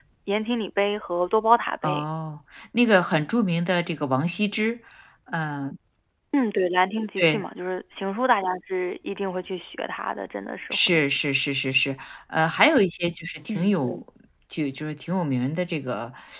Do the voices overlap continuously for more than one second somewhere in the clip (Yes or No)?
No